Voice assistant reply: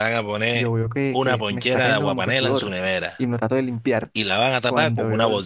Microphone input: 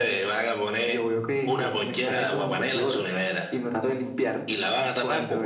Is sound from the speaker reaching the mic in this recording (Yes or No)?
Yes